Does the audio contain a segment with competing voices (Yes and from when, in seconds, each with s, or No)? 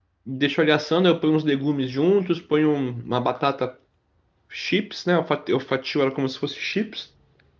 No